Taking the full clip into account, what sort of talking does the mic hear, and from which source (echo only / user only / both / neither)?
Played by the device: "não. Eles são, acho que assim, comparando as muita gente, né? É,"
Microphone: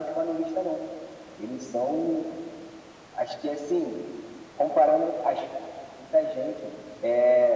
echo only